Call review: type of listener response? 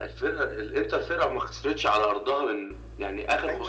taking over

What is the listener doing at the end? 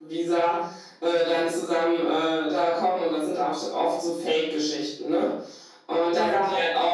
listening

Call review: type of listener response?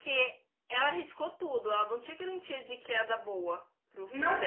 taking over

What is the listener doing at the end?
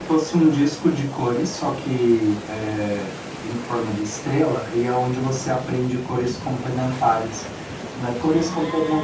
listening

